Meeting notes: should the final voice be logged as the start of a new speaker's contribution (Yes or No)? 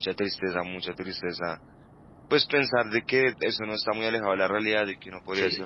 No